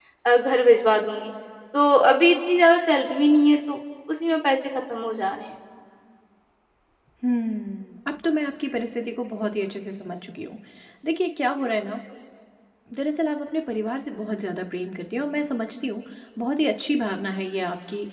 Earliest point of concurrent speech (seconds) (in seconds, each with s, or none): none